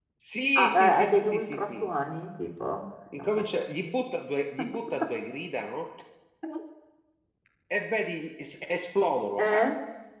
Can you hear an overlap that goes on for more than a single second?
Yes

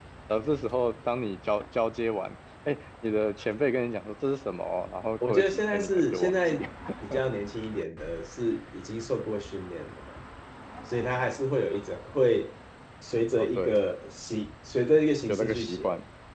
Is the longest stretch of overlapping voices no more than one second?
No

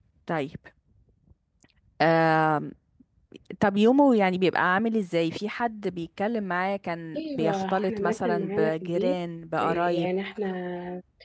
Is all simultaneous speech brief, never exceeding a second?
No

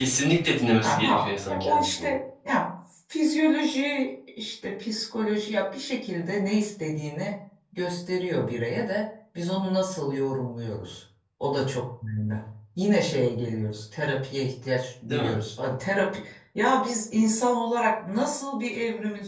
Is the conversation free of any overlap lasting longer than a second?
No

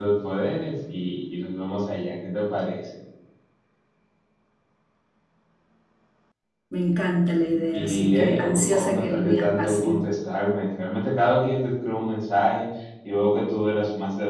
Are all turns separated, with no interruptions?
No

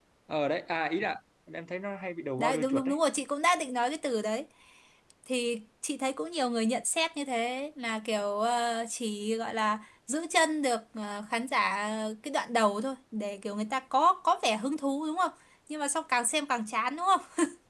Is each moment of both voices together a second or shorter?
Yes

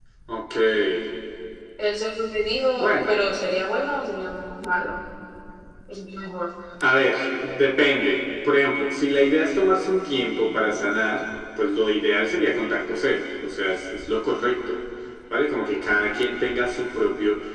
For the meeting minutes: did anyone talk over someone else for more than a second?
No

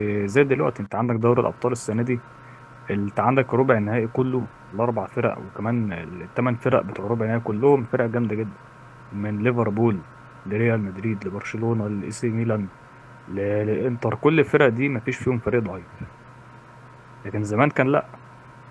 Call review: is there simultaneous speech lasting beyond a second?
No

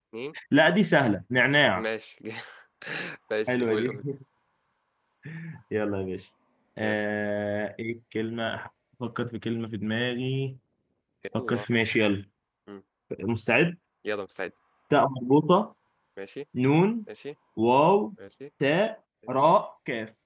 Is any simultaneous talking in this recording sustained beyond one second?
No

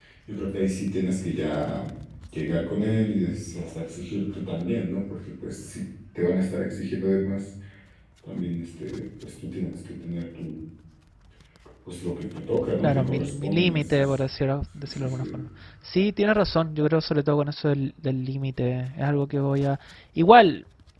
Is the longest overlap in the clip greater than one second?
Yes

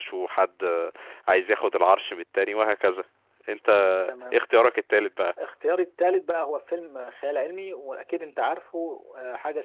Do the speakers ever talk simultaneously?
No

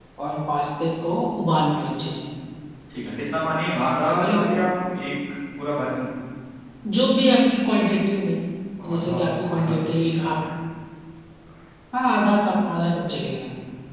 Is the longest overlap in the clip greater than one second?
Yes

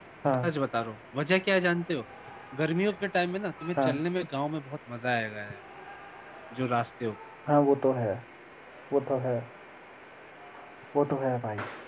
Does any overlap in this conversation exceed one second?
No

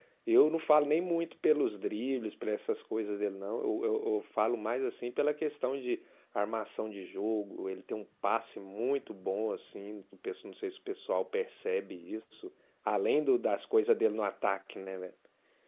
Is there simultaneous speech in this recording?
No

